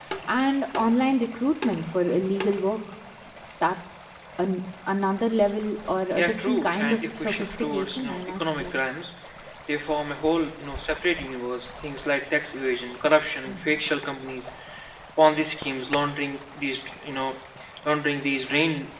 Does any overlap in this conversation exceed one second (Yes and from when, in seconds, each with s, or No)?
Yes, from 6.2 s